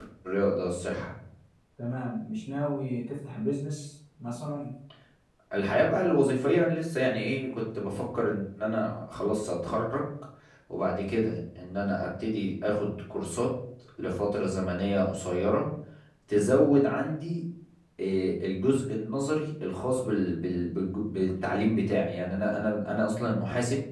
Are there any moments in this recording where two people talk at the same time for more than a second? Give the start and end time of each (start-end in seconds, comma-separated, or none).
none